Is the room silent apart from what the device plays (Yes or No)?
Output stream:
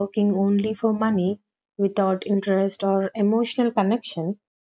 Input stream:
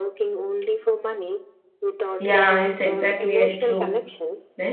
No